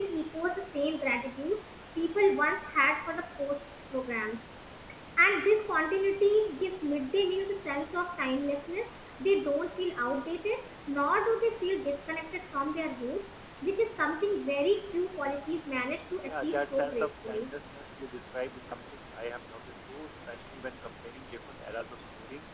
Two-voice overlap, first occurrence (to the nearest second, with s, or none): 16 s